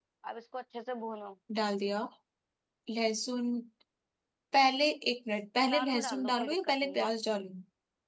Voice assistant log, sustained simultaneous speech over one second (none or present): present